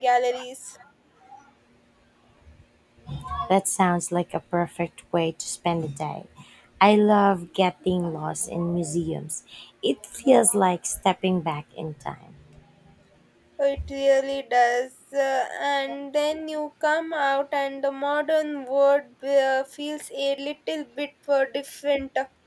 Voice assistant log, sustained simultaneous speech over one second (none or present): none